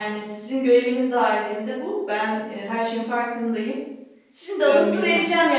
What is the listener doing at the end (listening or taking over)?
listening